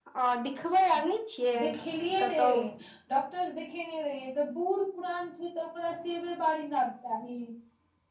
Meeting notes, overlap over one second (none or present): none